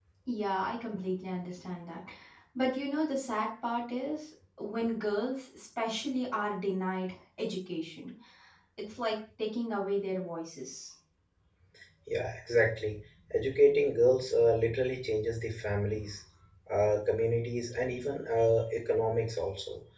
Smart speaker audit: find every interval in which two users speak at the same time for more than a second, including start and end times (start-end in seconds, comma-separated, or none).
none